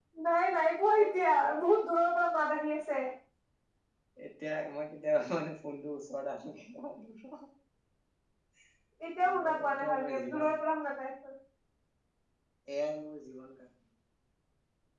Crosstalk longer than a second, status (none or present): present